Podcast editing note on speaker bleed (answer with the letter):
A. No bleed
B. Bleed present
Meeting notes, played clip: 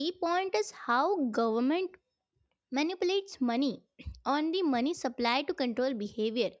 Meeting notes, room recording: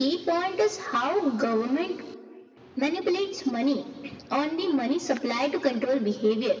B